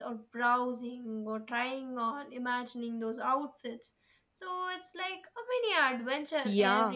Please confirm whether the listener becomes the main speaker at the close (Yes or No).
Yes